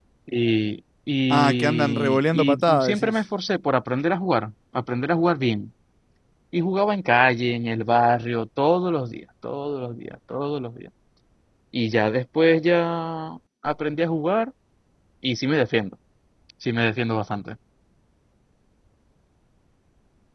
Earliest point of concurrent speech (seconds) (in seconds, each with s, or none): 1.3 s